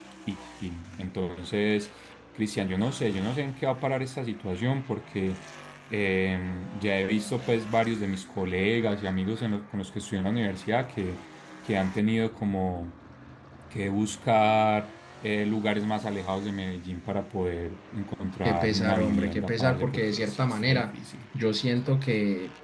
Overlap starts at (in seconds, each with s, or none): 18.4 s